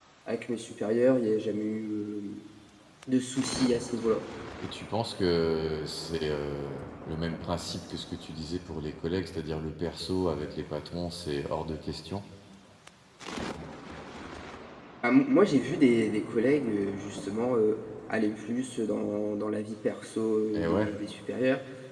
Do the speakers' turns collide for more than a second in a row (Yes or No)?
No